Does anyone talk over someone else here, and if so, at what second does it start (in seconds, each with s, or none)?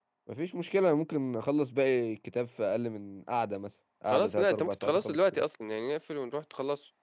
4.1 s